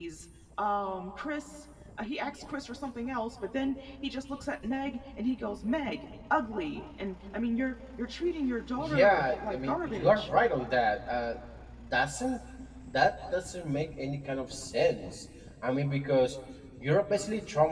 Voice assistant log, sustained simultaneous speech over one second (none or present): present